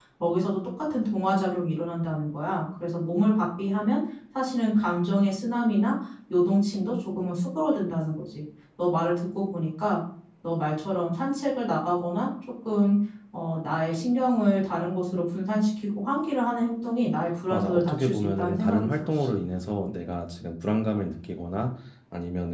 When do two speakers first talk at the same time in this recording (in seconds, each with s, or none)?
17.5 s